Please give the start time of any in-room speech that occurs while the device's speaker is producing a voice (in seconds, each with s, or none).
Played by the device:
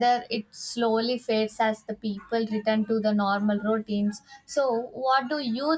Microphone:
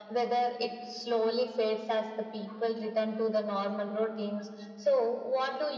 none